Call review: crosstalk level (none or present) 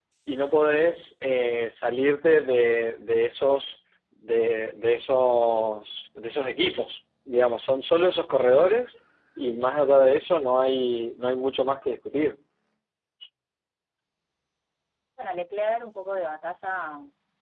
none